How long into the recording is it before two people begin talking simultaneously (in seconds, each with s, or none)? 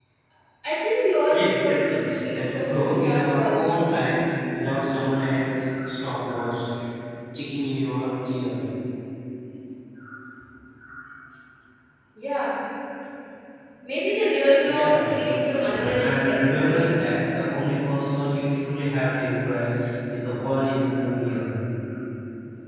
1.3 s